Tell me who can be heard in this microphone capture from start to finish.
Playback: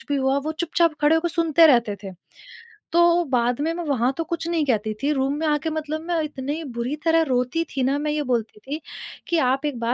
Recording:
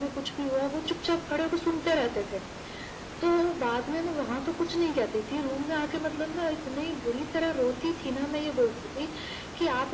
echo only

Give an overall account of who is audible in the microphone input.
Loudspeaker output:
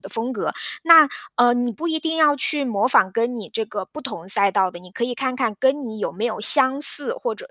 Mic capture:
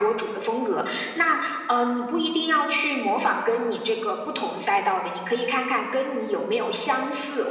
echo only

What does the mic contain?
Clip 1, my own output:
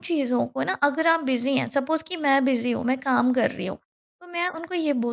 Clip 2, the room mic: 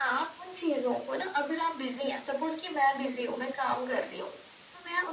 echo only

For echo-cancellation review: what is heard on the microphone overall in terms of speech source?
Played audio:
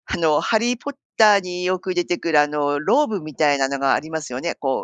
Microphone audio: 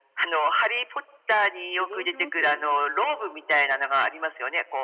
both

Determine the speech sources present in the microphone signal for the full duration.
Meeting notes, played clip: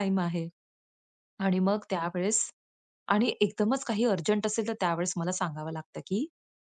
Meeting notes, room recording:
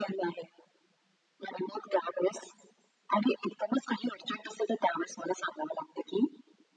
echo only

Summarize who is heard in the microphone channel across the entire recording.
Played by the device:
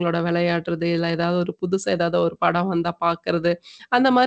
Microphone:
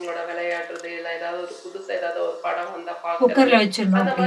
both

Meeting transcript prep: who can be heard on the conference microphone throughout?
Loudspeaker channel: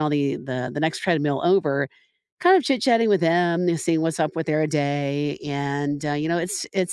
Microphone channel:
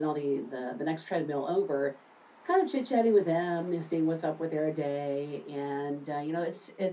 echo only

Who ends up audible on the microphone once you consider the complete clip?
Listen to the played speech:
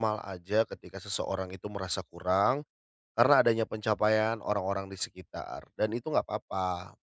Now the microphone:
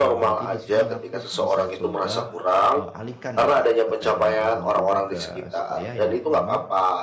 both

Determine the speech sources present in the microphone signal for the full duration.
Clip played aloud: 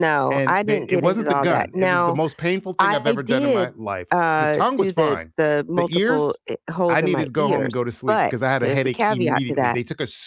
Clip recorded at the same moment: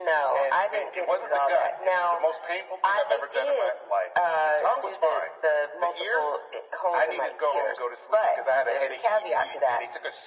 echo only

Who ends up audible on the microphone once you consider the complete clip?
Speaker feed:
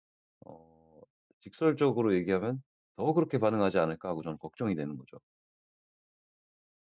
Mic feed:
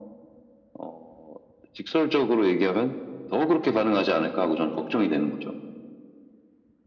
echo only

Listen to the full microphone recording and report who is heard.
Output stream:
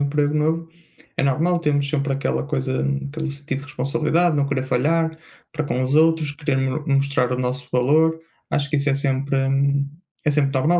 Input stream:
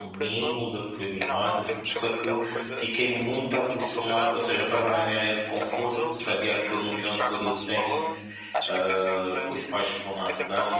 both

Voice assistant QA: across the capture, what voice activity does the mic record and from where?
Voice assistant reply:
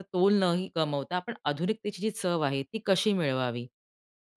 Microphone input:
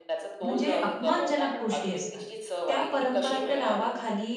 both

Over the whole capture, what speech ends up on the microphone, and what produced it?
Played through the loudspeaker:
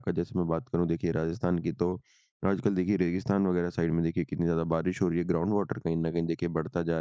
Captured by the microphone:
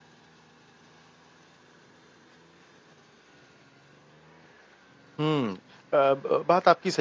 user only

